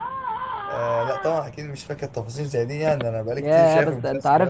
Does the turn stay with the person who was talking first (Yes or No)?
No